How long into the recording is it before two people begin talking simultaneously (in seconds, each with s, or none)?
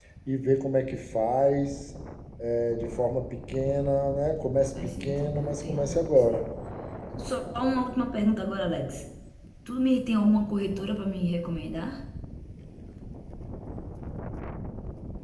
5.0 s